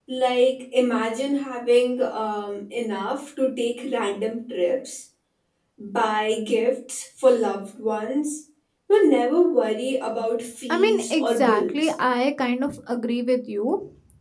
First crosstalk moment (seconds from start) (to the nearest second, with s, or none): 11 s